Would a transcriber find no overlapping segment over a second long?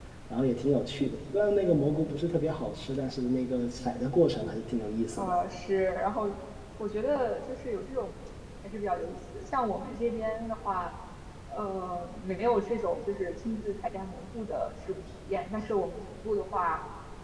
Yes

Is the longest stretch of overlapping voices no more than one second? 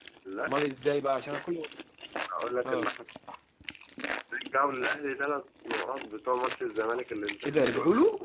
Yes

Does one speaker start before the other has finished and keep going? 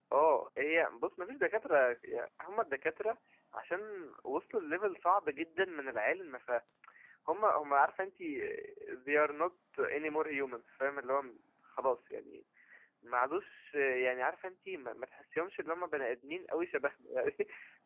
No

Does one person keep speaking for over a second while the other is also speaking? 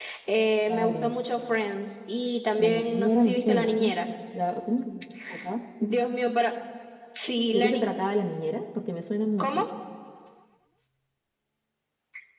Yes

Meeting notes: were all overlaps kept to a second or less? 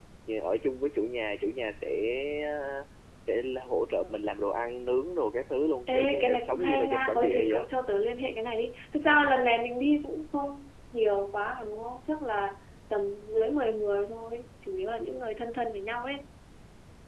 No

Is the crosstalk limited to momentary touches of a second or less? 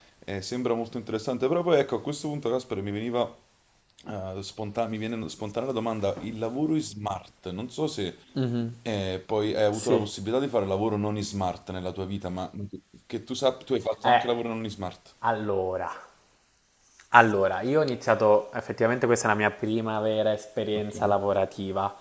Yes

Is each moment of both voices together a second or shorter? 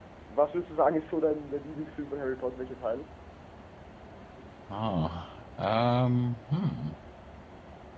Yes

